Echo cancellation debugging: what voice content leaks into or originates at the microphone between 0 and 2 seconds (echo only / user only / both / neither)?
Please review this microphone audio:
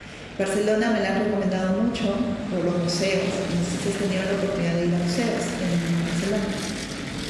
user only